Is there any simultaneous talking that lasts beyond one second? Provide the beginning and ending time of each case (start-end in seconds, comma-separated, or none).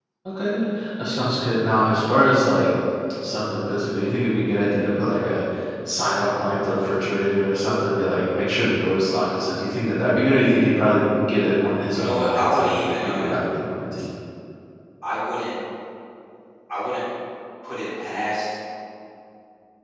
11.9-13.4